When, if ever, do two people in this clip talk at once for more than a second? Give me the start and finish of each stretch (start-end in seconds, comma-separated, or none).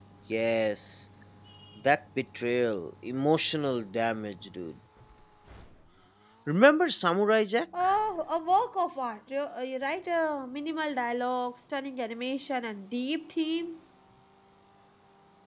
none